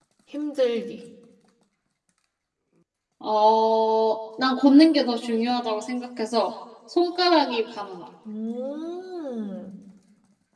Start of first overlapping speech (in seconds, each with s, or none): none